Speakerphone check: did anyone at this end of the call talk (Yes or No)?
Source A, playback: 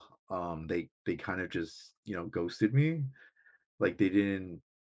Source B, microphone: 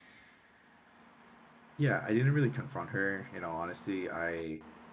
Yes